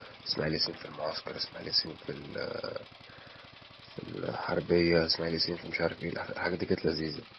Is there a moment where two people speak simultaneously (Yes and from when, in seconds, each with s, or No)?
No